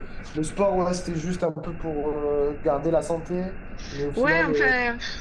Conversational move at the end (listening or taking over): taking over